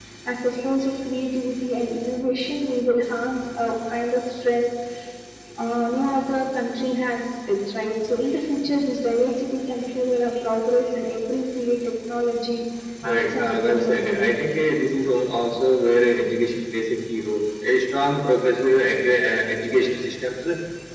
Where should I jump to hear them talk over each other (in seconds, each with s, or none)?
13.1 s